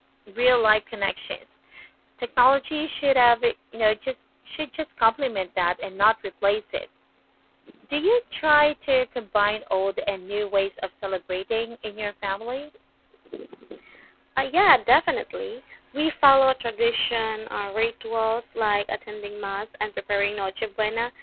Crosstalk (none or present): none